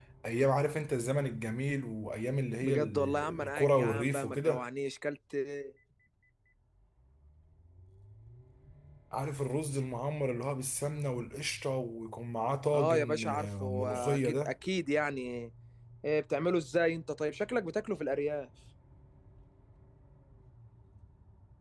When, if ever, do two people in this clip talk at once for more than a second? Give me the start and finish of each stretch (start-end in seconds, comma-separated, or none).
2.6-4.6, 12.7-14.5